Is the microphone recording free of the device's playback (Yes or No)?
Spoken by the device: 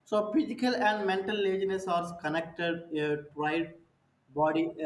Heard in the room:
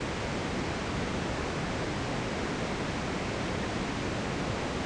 Yes